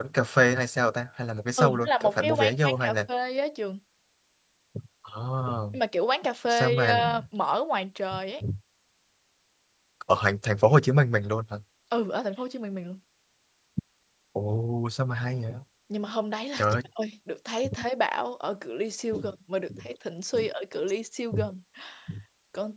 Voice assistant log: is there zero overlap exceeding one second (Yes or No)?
No